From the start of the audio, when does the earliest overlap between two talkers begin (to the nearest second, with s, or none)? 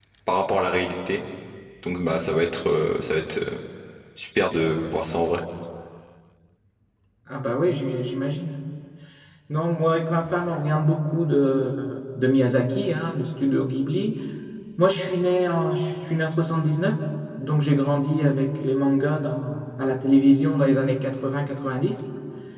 none